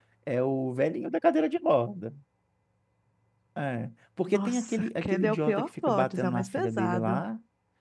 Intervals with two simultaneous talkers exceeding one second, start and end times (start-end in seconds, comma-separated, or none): 4.3-7.2